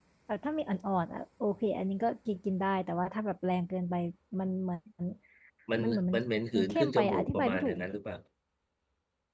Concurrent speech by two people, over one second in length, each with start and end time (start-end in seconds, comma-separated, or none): 6.5-7.8